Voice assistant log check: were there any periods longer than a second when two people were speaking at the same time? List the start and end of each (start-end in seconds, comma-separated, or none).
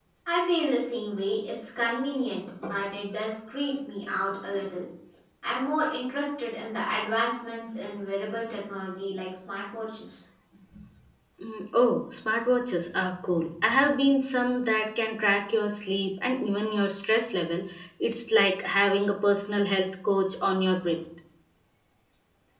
none